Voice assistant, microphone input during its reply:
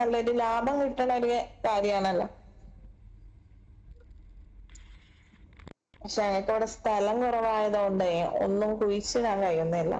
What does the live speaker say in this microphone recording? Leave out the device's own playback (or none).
none